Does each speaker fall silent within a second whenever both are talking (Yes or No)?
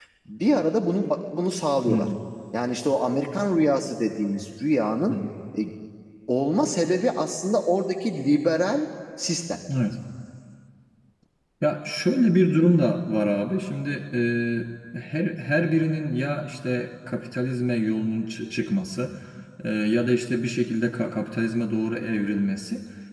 Yes